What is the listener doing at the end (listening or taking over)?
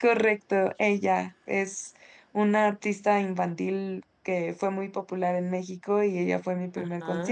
listening